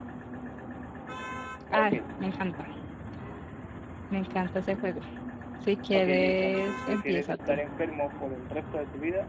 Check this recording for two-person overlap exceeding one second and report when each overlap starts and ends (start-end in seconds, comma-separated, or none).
5.9-7.6